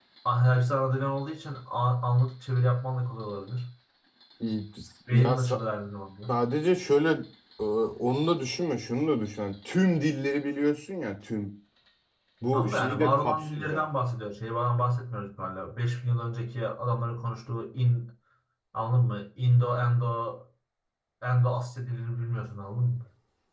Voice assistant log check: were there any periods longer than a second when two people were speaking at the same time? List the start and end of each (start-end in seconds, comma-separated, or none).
12.5-13.8